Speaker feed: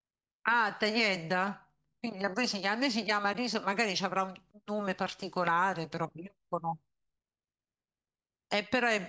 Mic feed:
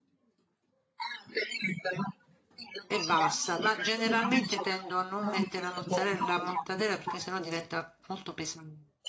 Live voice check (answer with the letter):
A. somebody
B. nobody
A